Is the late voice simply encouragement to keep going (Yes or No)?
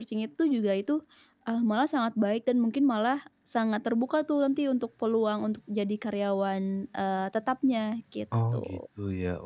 No